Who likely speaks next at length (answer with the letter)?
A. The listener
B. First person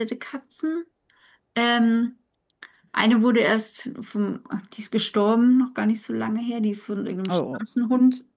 B